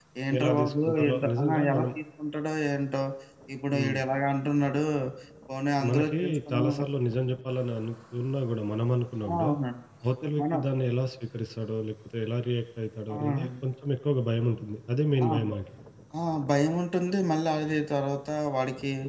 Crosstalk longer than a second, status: present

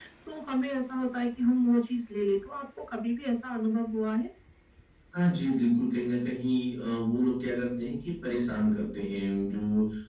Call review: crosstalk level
none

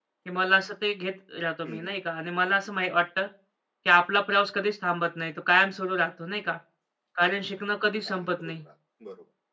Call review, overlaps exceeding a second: none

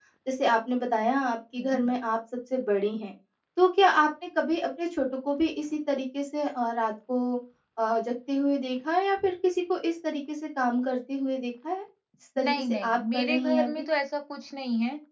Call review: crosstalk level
present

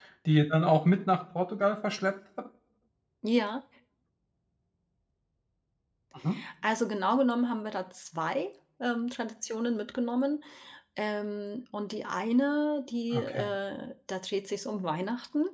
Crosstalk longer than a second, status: none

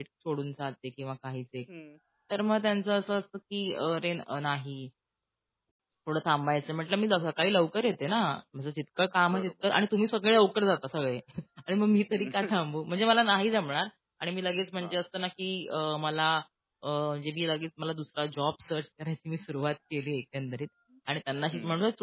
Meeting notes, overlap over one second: none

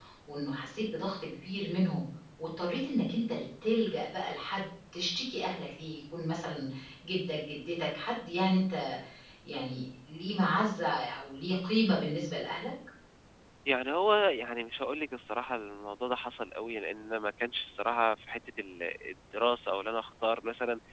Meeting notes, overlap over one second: none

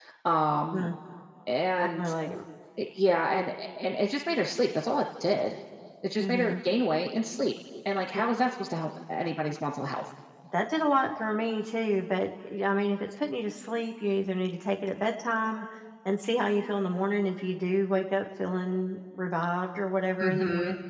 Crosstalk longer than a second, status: none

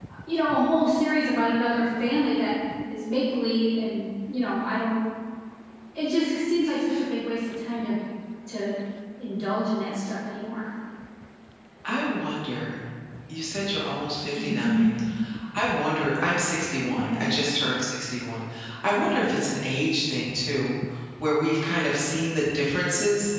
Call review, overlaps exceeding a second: none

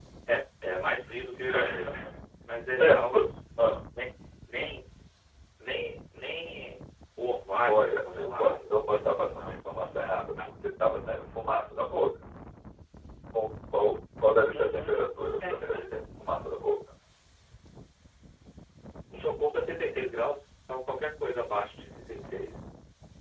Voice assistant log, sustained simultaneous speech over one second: present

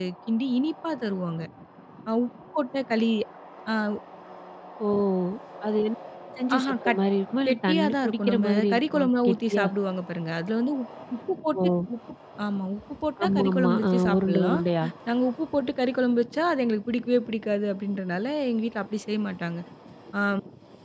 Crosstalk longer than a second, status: present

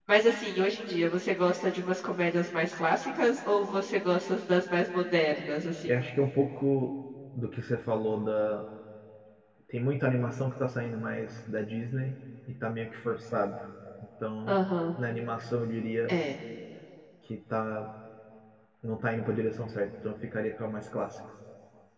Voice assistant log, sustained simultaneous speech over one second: none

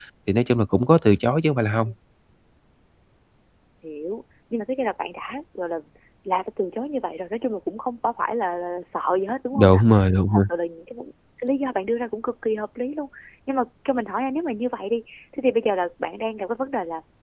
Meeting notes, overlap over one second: none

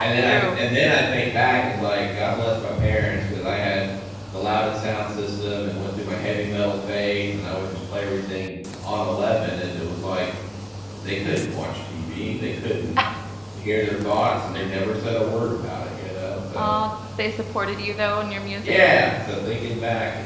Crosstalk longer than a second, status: none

